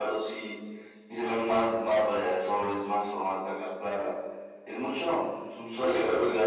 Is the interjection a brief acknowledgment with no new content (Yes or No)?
No